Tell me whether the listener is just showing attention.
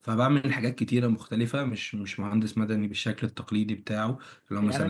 No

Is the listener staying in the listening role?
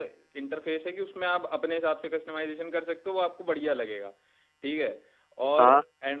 Yes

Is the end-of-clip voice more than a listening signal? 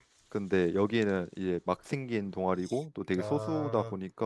No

